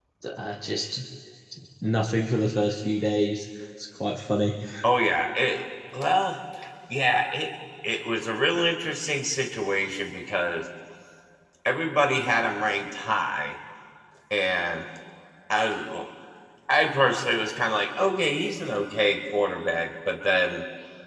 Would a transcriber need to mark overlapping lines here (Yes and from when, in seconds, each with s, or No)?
No